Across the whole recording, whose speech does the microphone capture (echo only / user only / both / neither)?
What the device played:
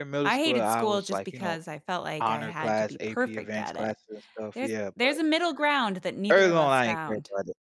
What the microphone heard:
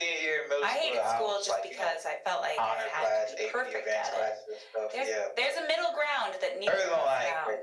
echo only